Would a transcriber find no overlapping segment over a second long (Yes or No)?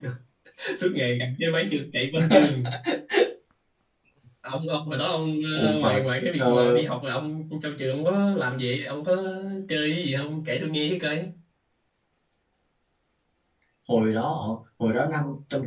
Yes